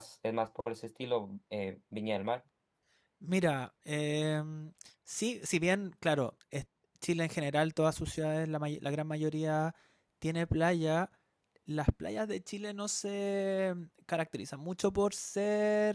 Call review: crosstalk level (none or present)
none